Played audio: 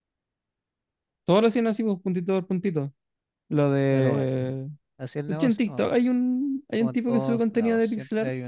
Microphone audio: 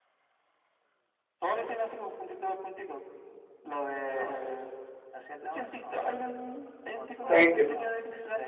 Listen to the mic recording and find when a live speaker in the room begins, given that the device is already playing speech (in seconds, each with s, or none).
7.3 s